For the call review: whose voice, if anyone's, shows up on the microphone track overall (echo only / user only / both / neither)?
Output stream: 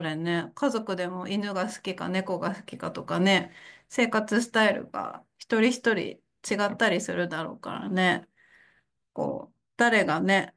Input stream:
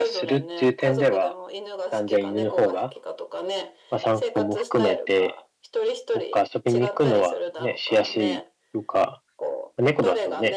both